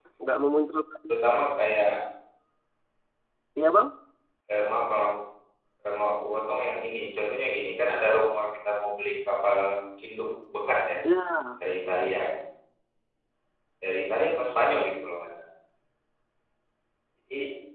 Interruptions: none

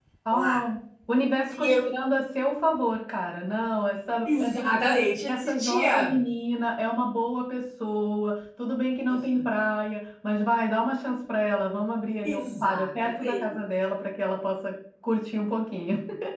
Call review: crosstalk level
present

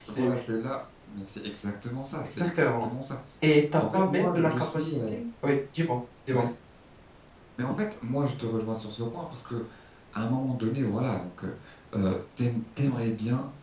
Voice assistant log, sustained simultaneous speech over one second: present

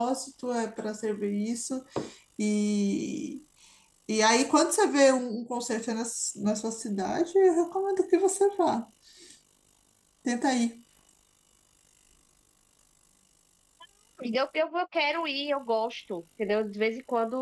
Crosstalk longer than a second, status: none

